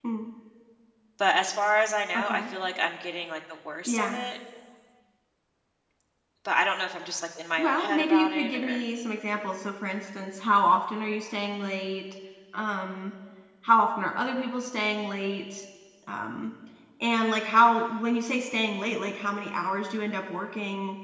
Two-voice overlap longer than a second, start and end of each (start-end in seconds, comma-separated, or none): 7.6-8.8